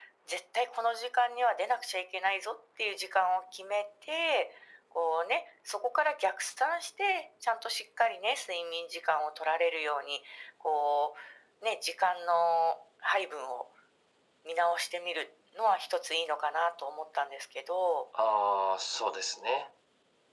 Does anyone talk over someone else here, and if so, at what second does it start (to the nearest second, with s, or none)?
none